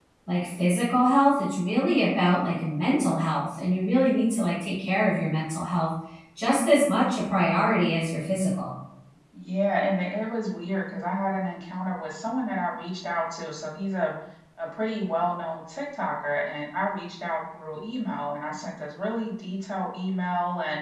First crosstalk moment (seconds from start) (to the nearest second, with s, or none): none